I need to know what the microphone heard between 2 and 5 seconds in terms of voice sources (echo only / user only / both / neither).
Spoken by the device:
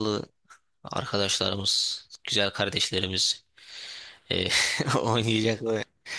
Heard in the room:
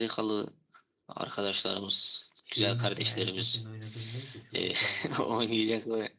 both